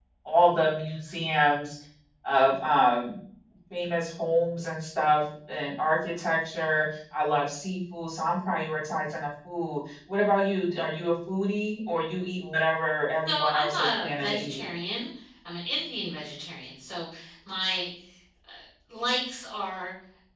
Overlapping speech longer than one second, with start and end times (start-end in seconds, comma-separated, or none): 13.3-14.6